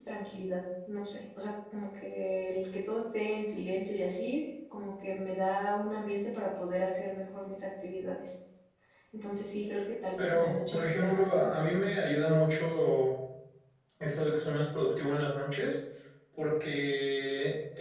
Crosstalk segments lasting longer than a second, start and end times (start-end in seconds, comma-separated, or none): 10.2-11.5